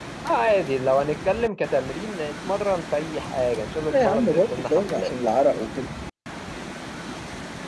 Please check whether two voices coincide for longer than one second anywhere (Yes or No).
Yes